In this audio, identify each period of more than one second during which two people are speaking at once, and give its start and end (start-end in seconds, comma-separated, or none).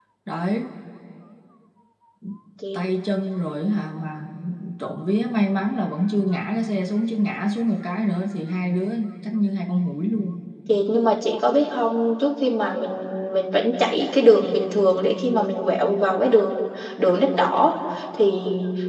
none